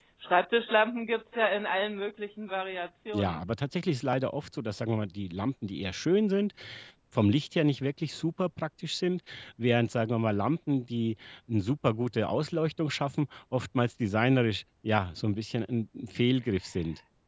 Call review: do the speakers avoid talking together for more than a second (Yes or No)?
Yes